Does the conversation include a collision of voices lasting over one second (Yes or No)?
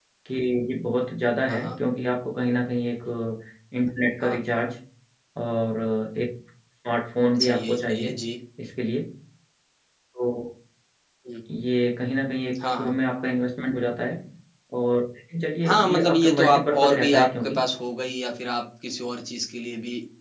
Yes